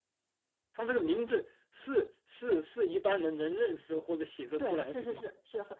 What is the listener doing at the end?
taking over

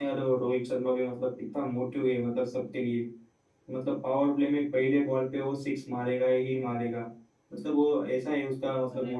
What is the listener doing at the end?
listening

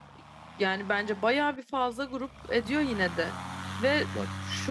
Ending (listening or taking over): listening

